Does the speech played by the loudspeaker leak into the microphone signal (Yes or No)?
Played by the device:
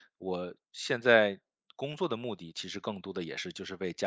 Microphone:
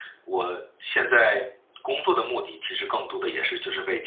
Yes